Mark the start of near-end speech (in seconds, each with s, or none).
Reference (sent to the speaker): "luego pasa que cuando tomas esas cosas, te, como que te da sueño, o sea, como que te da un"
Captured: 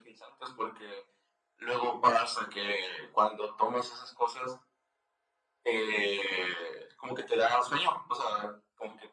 none